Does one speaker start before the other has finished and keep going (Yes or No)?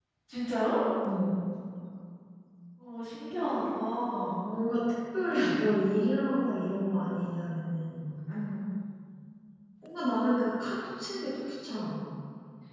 No